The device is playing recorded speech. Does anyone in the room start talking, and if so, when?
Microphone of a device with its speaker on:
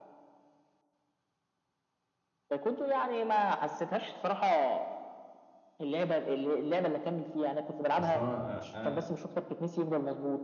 8.0 s

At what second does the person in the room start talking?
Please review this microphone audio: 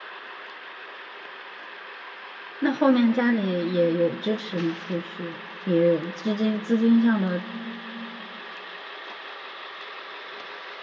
2.6 s

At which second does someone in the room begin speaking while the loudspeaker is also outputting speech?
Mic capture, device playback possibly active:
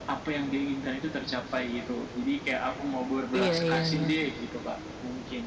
3.4 s

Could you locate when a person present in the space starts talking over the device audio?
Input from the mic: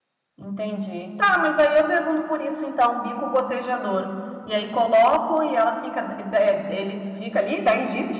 0.4 s

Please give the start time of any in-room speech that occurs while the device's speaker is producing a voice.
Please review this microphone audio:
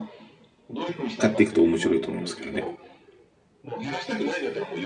1.2 s

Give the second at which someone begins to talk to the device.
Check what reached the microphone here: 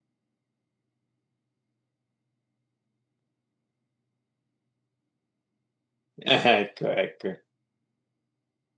6.2 s

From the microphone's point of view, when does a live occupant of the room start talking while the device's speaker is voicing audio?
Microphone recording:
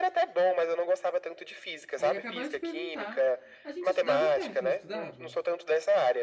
1.9 s

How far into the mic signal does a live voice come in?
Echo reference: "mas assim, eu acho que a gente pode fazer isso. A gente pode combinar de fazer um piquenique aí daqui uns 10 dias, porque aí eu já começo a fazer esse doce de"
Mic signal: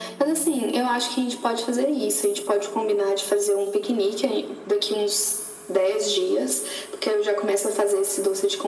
none

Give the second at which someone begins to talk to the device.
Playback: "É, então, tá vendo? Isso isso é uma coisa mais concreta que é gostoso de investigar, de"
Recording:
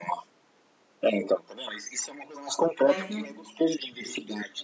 2.8 s

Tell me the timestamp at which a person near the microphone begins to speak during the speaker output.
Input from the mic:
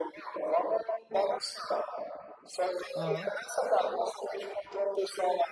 3.0 s

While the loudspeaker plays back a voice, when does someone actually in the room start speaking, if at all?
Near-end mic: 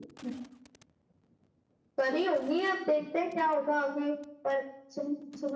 none

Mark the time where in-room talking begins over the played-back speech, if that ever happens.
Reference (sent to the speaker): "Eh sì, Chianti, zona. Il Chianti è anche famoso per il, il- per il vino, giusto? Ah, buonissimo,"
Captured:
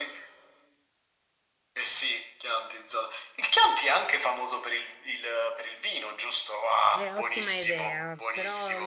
6.9 s

